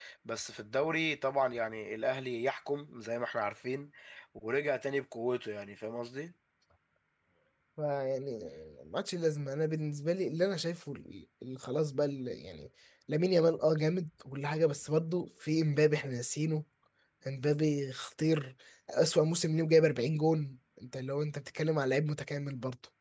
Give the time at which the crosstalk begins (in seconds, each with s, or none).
none